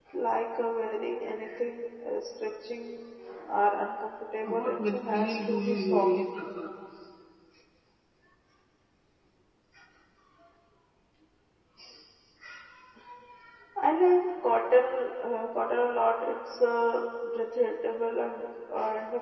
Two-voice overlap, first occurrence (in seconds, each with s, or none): 4.4 s